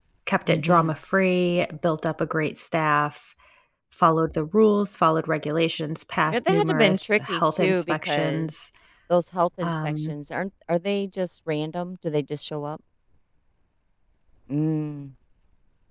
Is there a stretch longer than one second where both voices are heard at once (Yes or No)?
Yes